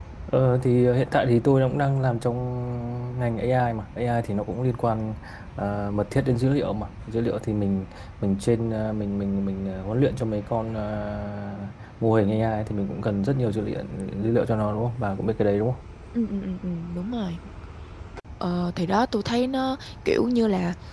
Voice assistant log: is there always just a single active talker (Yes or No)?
Yes